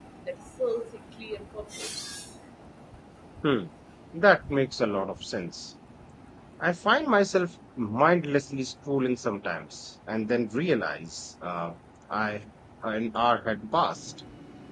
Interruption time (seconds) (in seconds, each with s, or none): none